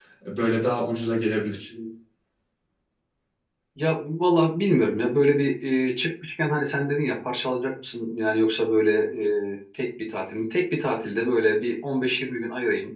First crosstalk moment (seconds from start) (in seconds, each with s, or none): none